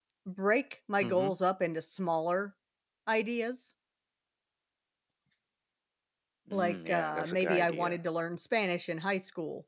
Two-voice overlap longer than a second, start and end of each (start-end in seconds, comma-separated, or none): 6.5-8.0